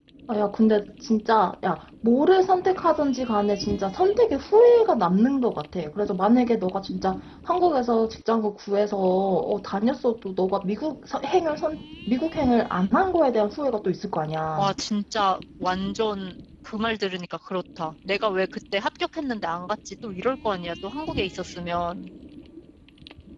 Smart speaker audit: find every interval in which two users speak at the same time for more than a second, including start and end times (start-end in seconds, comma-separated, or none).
none